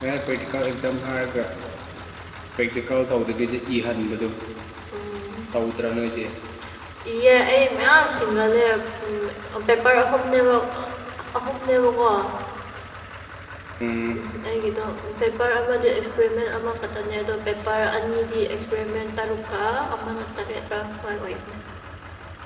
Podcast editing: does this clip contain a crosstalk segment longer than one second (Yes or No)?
No